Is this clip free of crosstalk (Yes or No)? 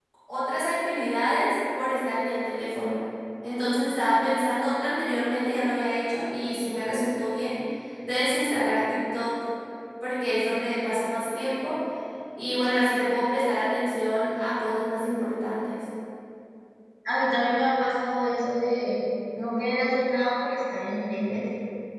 Yes